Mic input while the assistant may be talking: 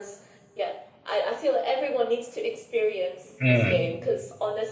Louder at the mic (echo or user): user